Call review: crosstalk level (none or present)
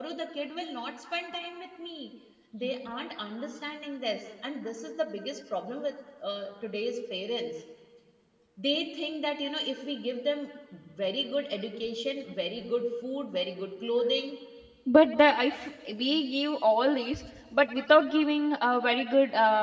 none